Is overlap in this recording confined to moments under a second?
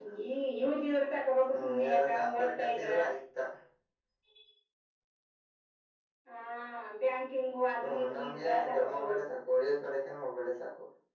No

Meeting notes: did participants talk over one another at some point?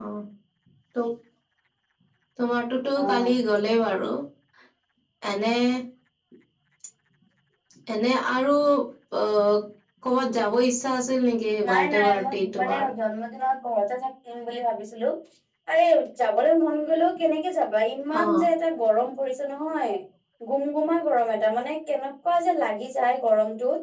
Yes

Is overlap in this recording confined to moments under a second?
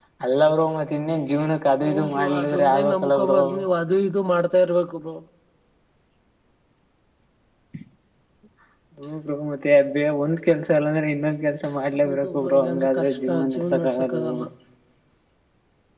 No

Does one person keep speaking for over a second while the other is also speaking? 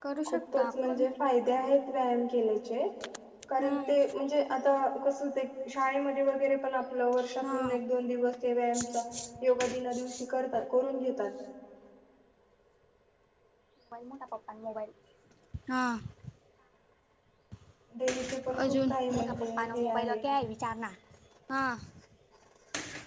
Yes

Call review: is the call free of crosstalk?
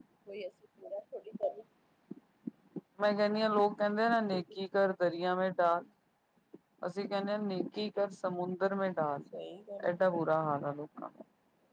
Yes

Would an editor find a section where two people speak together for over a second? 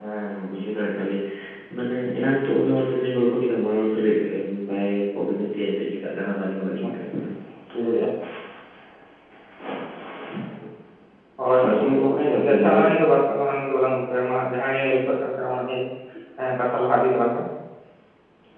Yes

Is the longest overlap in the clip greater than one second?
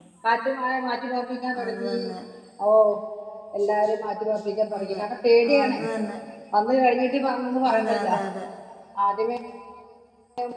No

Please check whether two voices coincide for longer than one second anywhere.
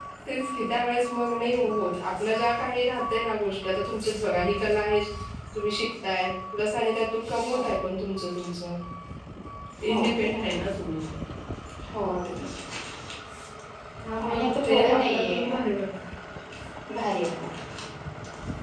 Yes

